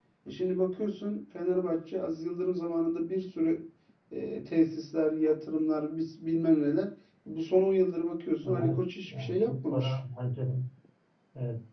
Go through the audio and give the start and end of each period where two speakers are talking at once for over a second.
8.4-9.9

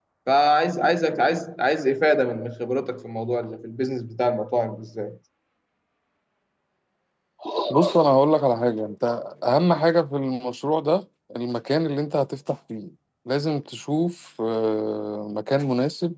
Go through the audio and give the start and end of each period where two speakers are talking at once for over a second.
none

